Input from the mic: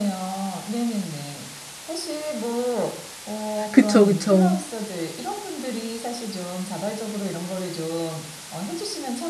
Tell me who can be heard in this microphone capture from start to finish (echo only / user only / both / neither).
both